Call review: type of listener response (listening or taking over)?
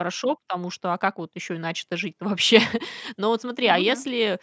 listening